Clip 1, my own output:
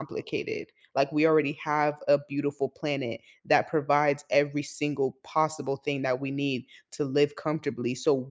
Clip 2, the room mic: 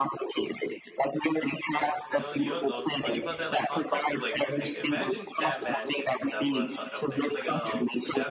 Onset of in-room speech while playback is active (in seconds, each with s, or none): 1.7 s